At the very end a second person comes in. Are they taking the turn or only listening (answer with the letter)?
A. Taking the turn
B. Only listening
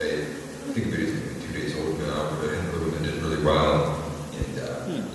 B